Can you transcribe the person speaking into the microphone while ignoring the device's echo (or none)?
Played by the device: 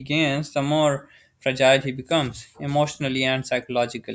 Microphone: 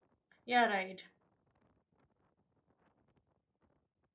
Yeah, right.